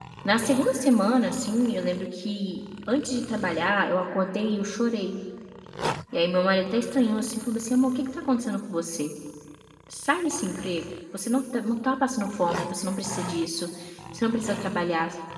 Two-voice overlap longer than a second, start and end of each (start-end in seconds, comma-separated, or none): none